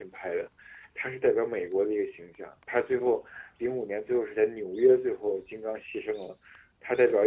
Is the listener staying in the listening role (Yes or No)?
Yes